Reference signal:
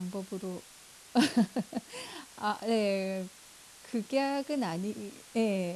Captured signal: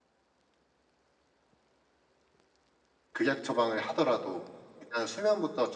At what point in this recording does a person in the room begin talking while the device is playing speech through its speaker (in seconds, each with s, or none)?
3.1 s